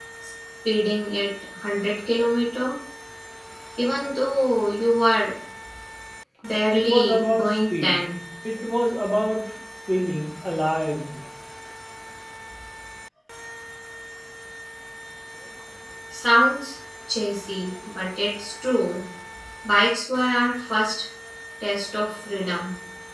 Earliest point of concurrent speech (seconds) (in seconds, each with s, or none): 6.7 s